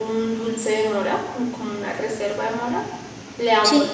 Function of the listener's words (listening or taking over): listening